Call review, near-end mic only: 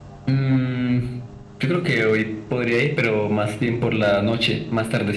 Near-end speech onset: none

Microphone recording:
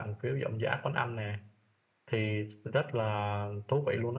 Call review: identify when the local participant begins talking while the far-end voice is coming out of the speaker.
none

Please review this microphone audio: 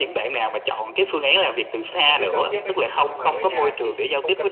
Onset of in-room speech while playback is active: 2.0 s

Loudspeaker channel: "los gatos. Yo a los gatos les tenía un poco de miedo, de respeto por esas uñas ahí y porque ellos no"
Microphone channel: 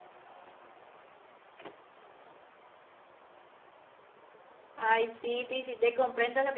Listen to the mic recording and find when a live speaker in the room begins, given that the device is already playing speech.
4.8 s

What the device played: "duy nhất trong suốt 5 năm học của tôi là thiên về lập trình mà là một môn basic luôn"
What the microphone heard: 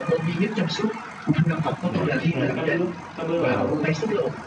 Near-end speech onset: 1.9 s

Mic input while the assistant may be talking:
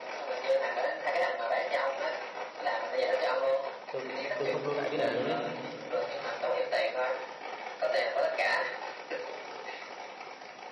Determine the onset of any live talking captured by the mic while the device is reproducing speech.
3.9 s

